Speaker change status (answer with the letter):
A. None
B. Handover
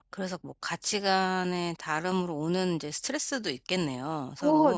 B